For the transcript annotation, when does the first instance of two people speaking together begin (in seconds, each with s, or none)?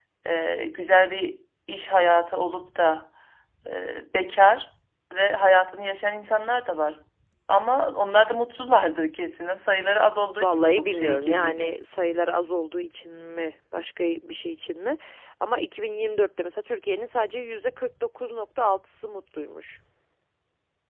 10.4 s